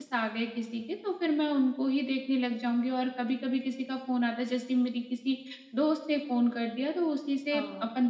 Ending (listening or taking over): listening